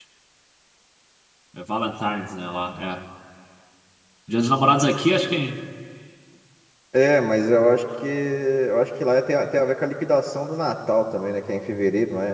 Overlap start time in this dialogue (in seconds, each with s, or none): none